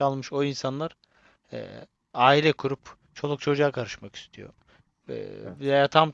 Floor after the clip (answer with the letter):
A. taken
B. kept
B